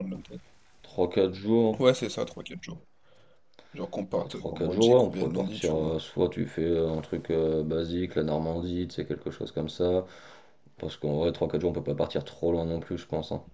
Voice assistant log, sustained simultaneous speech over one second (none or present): present